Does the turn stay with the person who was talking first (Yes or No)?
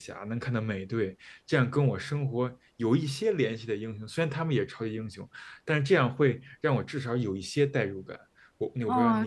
No